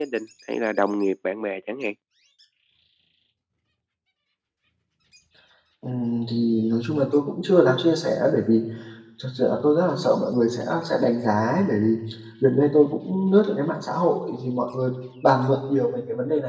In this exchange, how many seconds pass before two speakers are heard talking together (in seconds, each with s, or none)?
none